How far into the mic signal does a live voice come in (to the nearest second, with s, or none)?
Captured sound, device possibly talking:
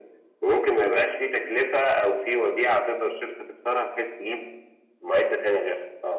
none